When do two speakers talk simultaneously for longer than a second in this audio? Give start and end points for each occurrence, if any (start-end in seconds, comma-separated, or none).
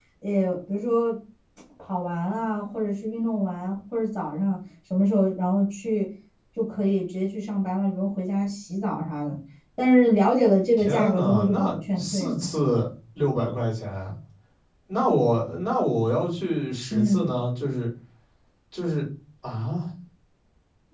10.8-12.4